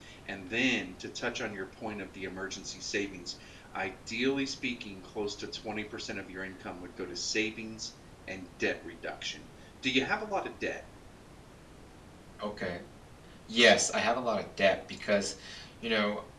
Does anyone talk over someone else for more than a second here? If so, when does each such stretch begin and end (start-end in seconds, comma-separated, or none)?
none